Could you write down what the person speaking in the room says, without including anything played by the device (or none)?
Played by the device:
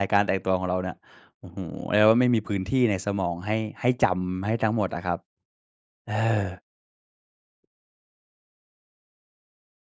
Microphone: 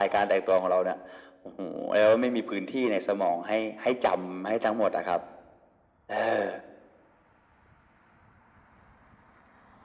none